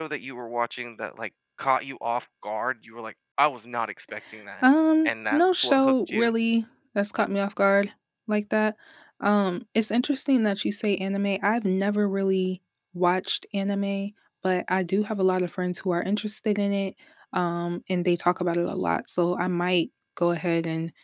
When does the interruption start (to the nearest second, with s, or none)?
5 s